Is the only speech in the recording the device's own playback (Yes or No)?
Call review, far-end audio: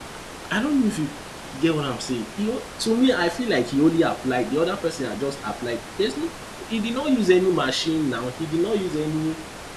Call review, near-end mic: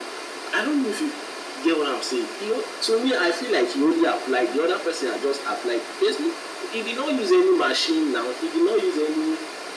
Yes